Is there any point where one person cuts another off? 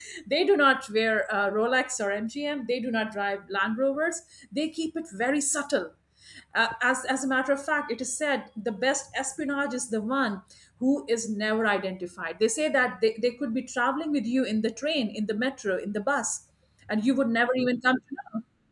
No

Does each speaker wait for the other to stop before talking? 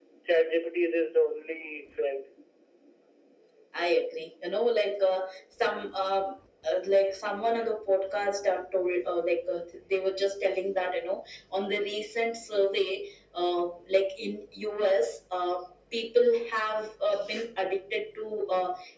Yes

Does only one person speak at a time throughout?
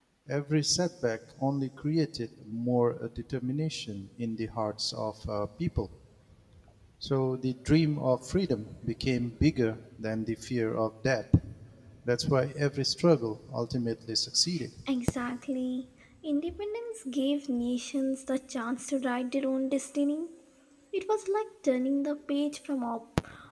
Yes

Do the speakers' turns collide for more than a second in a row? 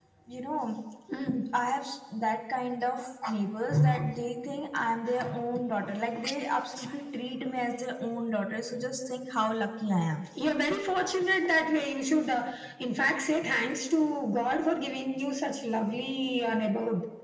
No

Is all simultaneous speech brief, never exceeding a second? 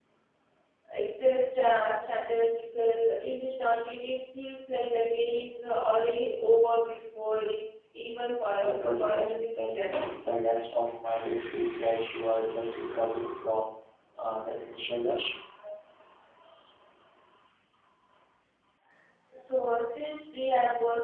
No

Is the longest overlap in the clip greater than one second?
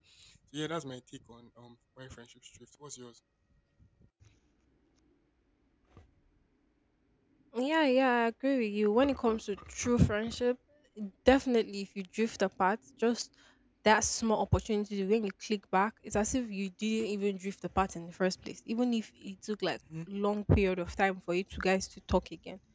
No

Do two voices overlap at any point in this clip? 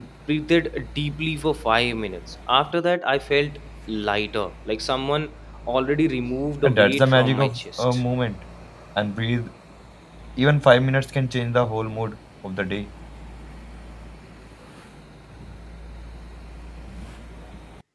Yes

